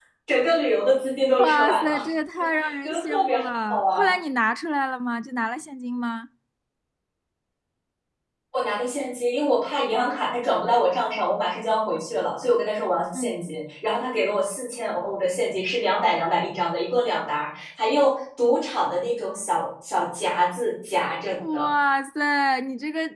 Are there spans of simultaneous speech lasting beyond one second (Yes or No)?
Yes